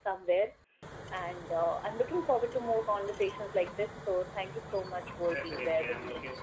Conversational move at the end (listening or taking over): taking over